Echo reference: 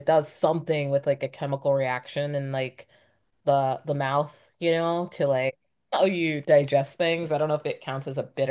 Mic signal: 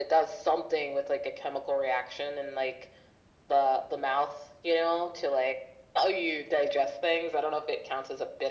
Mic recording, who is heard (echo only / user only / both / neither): echo only